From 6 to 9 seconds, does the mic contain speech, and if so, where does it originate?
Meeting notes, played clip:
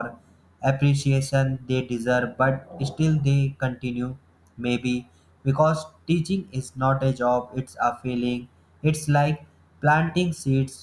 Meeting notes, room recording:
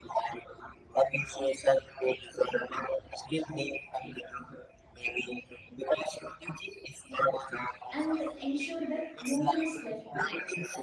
both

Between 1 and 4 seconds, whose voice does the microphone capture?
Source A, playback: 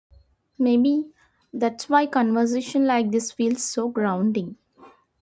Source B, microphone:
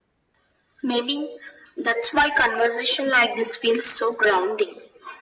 echo only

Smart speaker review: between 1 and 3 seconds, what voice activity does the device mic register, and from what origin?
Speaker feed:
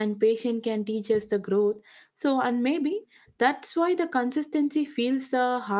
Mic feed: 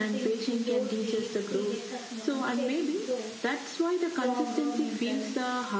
both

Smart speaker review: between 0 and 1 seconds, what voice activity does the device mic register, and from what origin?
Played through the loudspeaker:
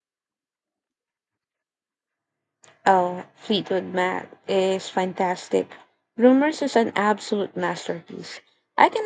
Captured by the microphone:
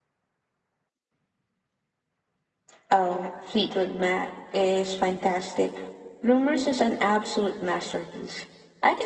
neither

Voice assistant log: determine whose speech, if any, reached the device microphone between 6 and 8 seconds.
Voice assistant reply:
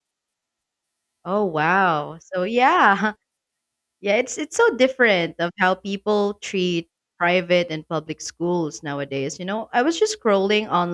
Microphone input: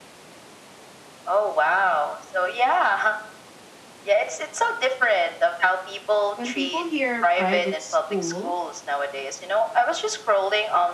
both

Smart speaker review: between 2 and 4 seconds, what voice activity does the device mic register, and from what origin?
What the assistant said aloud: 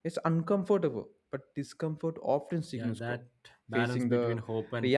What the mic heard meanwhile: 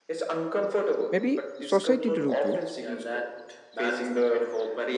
both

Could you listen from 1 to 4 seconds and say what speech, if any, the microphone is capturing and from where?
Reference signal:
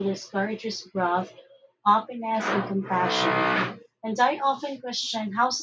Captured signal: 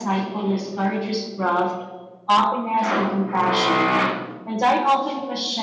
echo only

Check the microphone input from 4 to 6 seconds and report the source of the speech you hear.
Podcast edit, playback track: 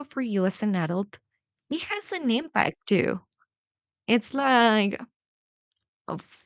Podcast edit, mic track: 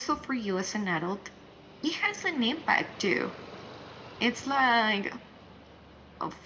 echo only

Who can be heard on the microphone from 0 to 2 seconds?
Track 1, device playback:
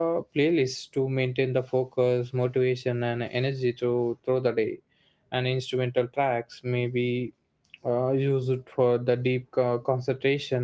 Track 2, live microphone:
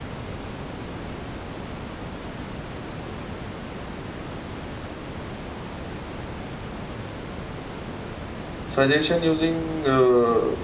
neither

